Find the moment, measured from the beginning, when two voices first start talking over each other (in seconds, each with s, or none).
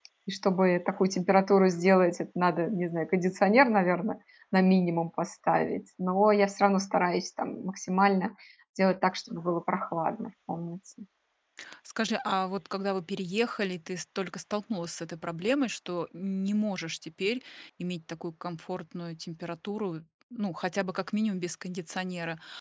none